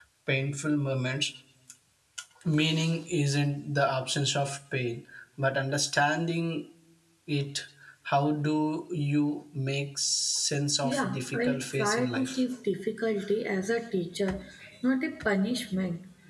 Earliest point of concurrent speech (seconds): 11 s

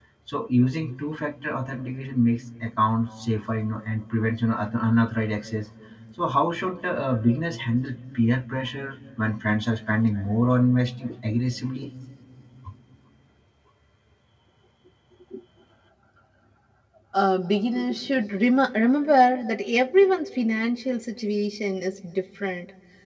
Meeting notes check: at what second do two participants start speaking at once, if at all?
none

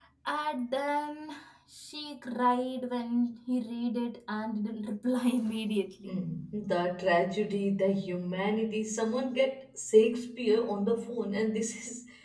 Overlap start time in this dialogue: none

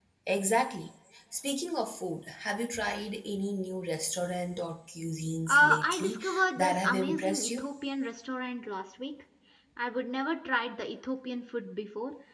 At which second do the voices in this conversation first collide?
5 s

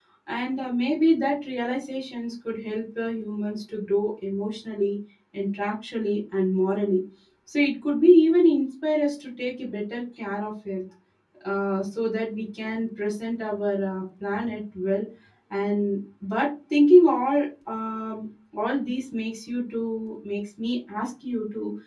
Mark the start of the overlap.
none

